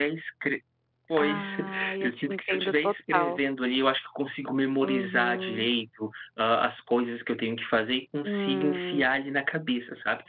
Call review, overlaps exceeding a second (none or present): present